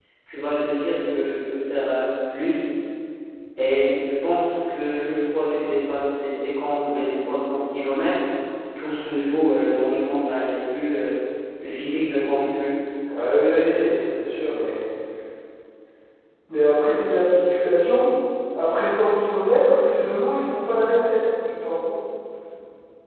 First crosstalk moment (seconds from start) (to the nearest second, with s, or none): none